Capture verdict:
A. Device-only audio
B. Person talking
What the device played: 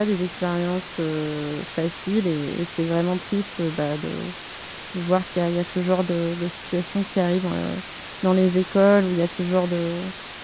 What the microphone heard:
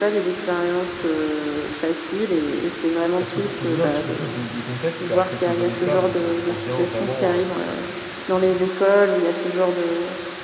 B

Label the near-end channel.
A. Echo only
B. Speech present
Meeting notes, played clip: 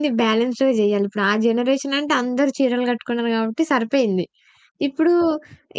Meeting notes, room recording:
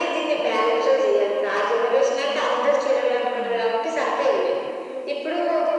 B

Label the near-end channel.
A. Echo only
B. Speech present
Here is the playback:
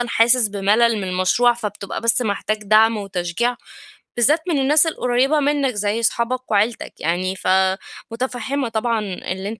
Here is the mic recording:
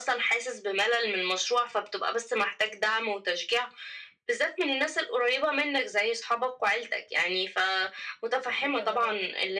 B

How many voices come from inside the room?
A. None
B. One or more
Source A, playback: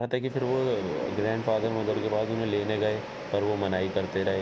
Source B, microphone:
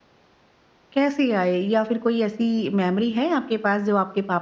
B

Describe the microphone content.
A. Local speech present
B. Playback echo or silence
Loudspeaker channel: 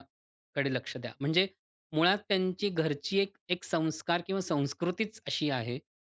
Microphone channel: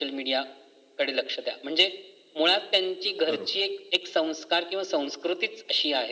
A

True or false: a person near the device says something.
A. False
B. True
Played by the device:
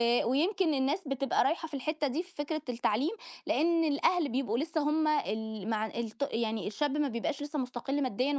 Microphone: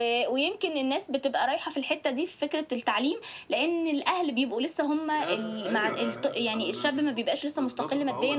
B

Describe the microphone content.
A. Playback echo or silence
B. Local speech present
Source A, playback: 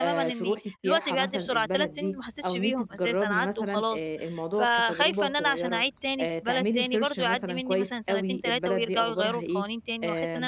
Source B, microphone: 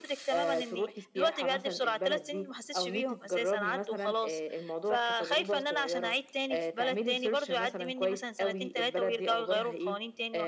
A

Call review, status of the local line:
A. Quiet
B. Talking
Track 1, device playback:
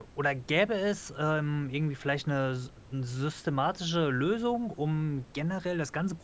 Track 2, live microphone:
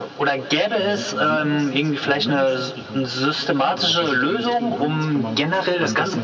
B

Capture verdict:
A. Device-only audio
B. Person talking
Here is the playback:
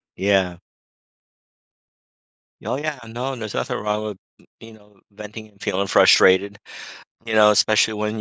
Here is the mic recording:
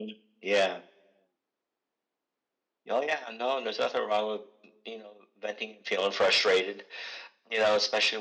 A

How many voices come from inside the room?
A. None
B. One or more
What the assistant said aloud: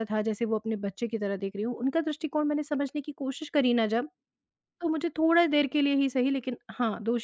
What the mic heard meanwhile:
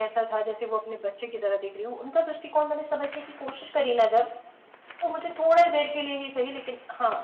A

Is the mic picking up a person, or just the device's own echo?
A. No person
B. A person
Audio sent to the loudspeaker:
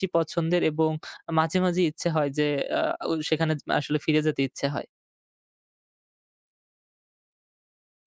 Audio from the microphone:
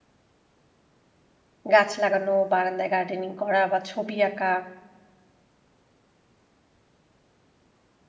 B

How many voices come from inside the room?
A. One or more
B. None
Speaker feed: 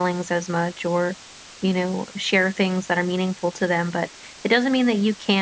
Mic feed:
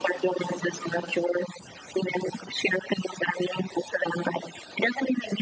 B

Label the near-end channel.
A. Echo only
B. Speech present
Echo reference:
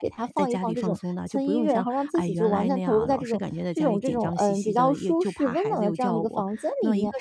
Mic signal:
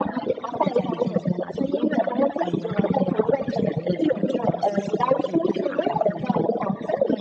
A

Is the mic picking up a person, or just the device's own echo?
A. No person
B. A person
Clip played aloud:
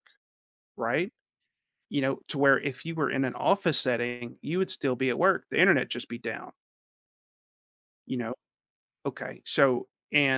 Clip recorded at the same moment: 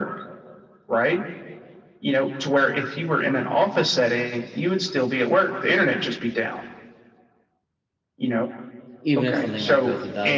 B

